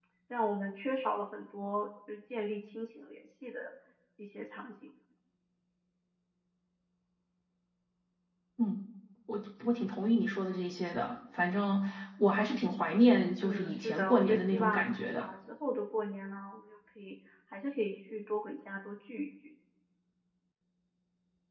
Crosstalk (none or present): present